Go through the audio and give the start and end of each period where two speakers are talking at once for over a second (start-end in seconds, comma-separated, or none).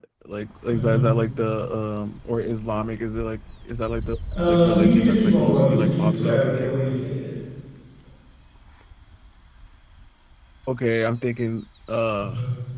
4.5-6.7